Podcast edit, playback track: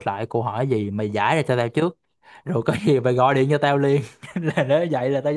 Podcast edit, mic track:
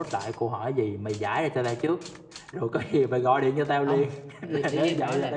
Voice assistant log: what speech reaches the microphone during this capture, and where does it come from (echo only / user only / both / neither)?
both